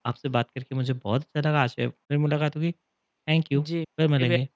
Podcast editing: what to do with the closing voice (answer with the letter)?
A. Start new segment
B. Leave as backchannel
A